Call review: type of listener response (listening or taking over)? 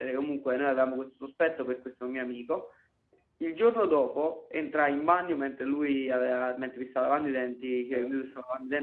listening